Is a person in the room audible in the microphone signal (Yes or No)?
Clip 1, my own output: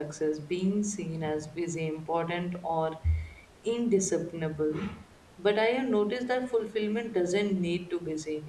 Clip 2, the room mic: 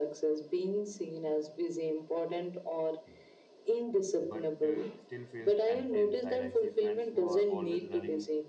Yes